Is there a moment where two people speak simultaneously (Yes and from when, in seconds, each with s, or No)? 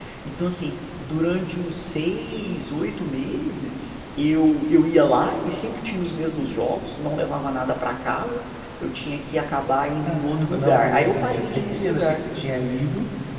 Yes, from 10.1 s